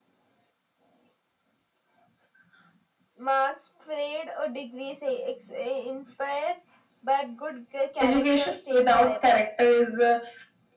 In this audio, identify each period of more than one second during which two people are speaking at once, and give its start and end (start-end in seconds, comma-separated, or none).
8.0-9.4